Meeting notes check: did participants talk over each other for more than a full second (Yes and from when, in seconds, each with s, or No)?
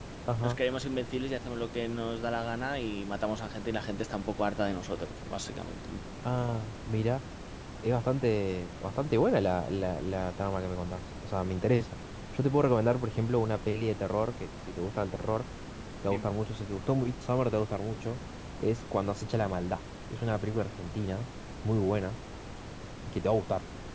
No